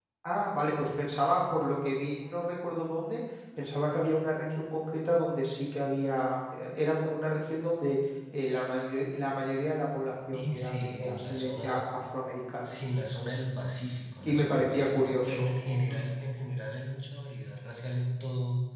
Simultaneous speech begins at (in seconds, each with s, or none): 10.3 s